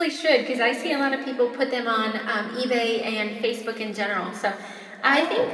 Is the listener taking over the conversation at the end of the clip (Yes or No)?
No